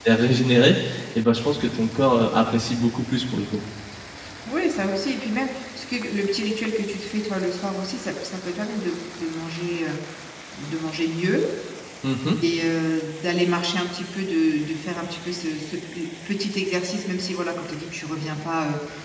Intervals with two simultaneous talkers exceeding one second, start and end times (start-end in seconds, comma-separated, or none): none